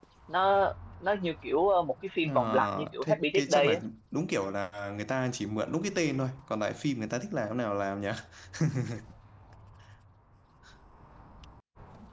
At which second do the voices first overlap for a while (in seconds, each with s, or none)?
2.2 s